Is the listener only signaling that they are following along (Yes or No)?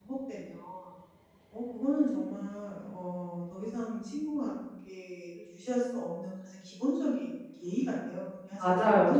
No